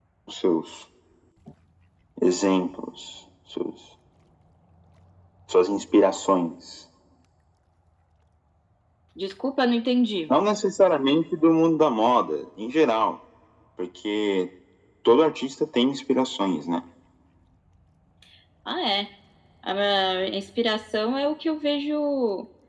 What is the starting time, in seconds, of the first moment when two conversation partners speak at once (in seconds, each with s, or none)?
none